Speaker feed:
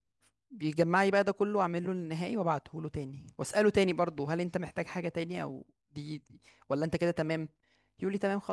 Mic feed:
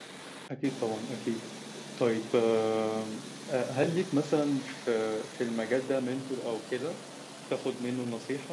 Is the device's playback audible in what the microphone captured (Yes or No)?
No